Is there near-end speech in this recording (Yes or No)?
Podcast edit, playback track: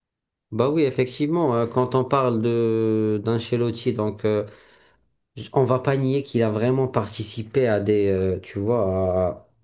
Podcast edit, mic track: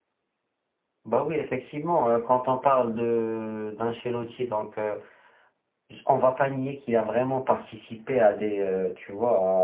No